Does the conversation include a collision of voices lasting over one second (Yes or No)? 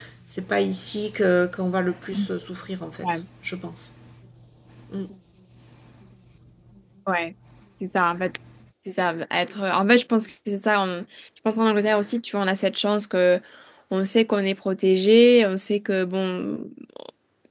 No